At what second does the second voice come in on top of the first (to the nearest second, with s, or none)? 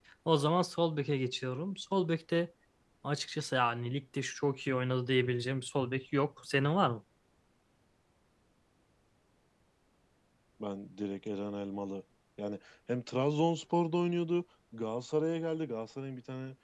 none